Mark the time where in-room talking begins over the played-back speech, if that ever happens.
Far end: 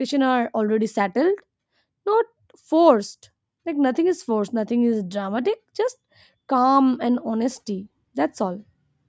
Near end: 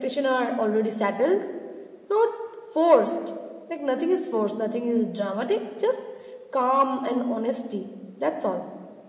none

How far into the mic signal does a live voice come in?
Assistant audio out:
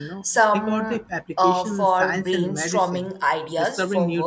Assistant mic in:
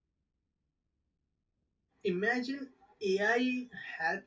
2.0 s

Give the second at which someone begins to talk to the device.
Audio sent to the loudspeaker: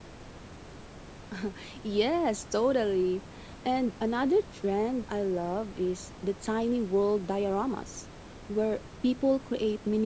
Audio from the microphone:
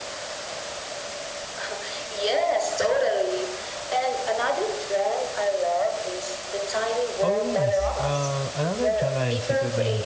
7.2 s

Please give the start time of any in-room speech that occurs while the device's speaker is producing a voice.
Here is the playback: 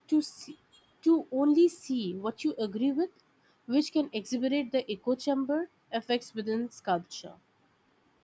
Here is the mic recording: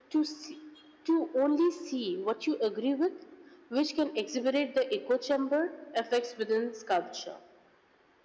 none

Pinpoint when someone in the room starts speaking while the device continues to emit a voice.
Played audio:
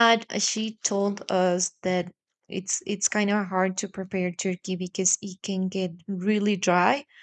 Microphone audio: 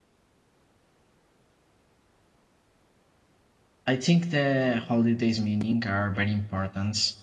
3.8 s

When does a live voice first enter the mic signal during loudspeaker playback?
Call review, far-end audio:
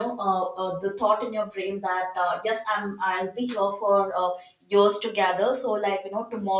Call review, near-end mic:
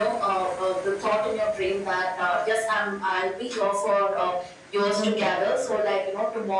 5.0 s

